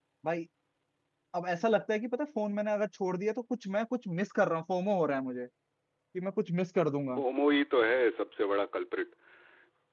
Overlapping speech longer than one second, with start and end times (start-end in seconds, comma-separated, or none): none